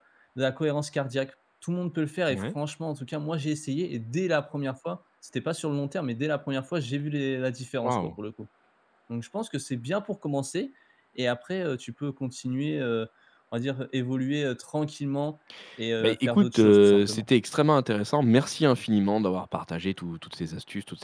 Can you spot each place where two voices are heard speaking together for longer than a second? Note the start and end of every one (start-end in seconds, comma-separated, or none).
16.0-17.3